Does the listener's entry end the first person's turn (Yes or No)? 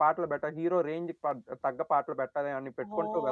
Yes